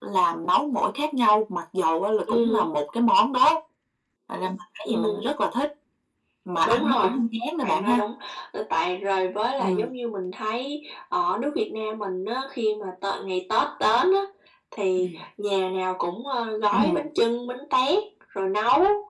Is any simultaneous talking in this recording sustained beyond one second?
No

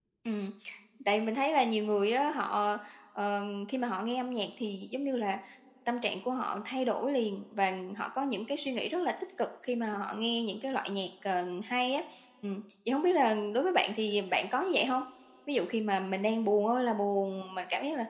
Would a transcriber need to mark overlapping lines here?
No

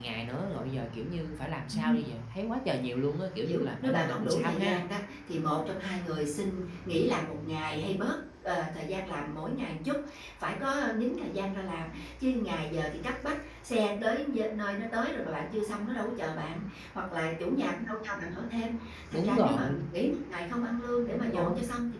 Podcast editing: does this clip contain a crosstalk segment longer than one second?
Yes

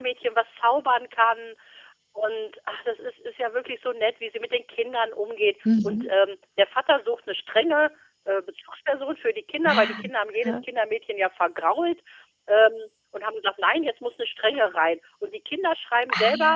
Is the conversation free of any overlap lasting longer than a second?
Yes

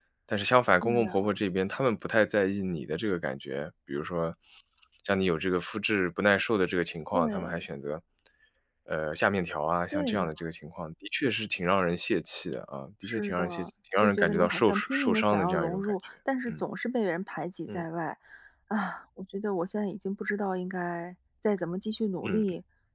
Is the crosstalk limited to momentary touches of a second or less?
No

